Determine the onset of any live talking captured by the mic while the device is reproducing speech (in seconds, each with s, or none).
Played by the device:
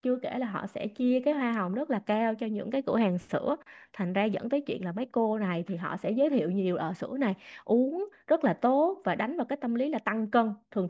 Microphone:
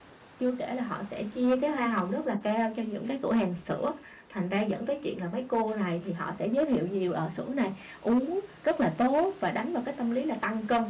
none